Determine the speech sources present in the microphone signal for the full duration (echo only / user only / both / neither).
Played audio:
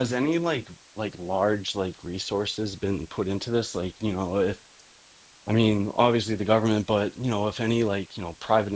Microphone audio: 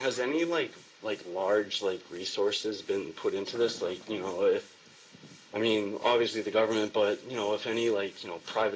echo only